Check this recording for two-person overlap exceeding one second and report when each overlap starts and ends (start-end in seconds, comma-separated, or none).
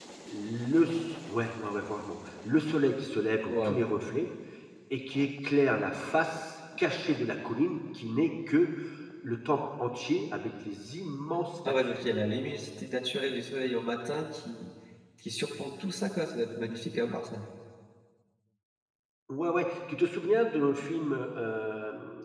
none